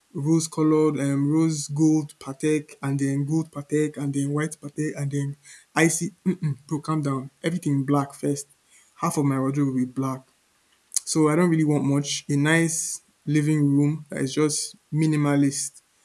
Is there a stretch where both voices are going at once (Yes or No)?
No